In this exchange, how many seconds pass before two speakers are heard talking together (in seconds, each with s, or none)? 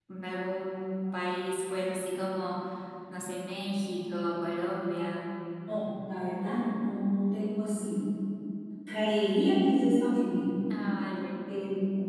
none